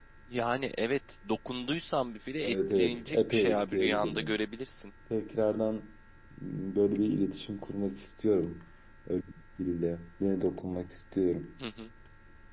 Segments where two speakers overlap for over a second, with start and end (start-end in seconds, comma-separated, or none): 2.4-4.3